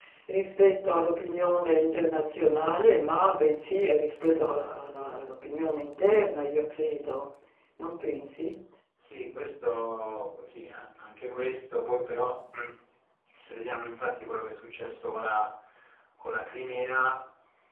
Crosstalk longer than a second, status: none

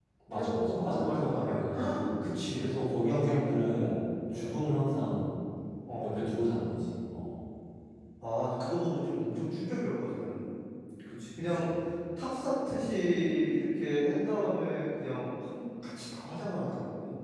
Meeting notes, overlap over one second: present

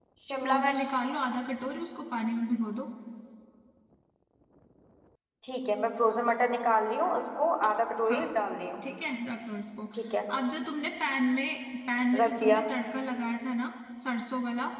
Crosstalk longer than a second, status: none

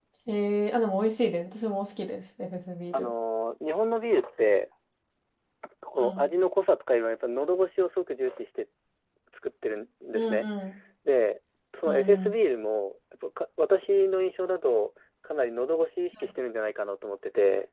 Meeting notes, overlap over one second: none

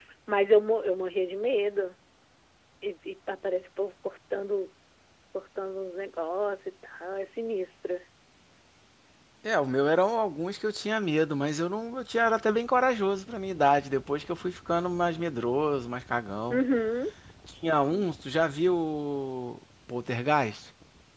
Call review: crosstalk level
none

